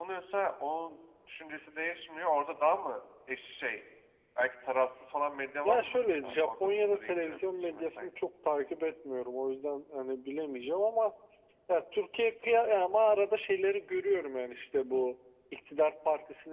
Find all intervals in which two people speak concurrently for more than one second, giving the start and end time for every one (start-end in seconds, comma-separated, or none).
5.6-8.1